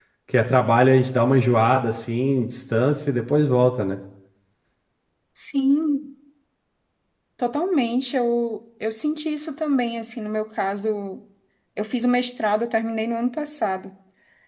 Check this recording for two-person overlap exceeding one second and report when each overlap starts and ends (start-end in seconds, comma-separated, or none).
none